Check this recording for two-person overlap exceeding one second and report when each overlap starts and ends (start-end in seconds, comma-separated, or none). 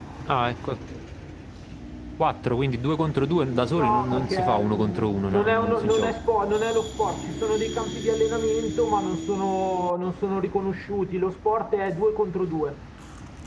3.8-6.2